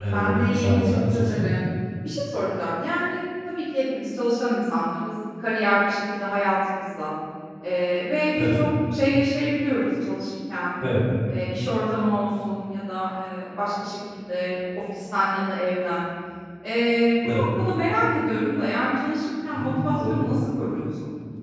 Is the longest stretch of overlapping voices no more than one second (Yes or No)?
No